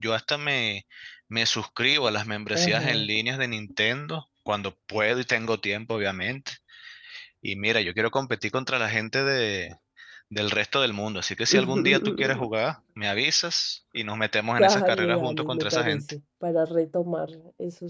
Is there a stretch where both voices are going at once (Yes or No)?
Yes